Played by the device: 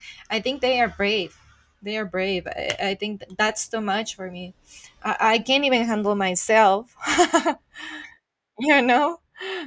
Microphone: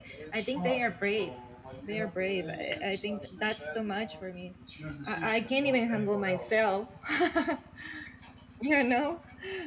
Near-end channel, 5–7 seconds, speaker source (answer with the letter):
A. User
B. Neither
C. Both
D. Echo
C